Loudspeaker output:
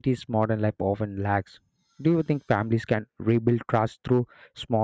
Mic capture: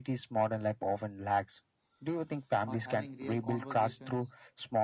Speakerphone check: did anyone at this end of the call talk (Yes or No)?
Yes